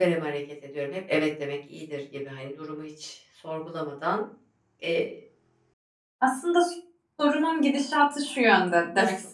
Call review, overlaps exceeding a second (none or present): none